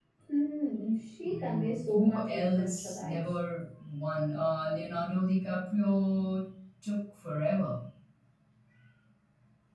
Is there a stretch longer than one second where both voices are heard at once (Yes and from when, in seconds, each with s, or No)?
Yes, from 1.2 s